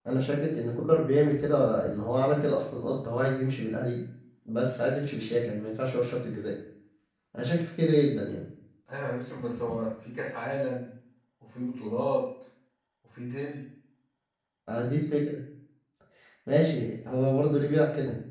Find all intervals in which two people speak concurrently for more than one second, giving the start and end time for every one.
none

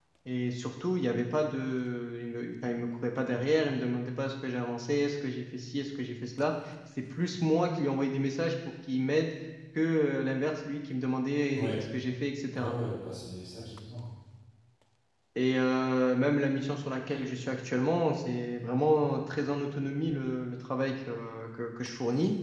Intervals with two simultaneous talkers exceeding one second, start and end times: none

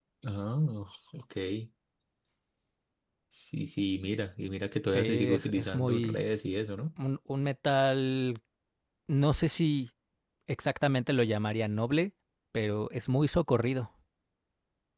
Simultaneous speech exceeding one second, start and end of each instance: 4.9-6.2

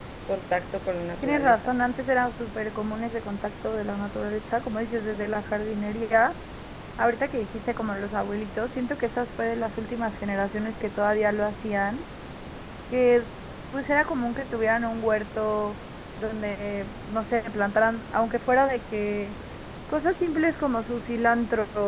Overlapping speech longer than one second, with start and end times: none

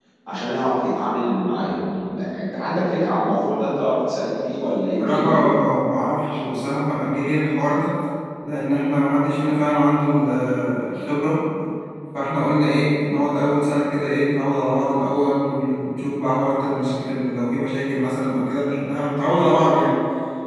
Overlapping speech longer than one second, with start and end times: none

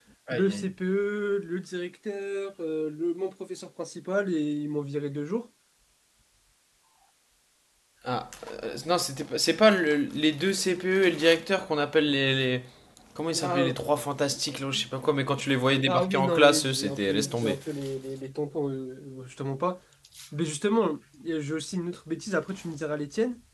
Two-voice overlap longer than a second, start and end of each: 15.8-17.6

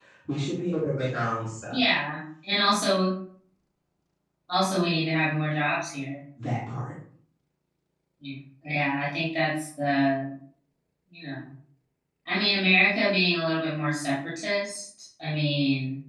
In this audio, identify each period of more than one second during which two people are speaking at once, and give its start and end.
none

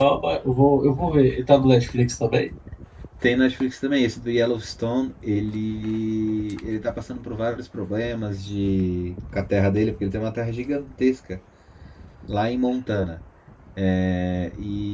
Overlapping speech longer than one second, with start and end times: none

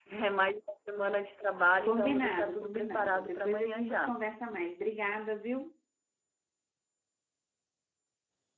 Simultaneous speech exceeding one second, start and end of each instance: 1.9-4.2

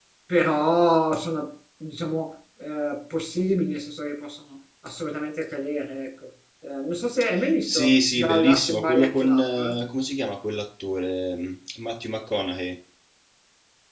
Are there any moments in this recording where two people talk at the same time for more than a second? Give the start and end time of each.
7.7-9.8

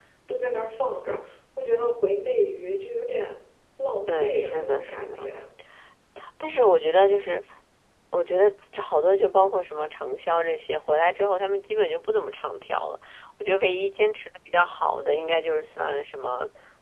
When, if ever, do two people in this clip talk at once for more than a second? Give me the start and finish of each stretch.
4.1-5.3

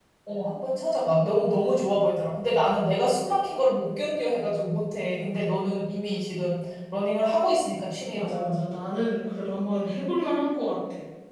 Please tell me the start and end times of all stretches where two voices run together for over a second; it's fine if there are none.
none

